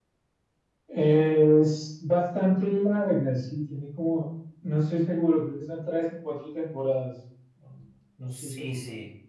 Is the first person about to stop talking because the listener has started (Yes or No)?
Yes